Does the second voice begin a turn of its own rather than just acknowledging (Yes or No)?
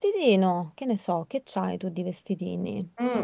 Yes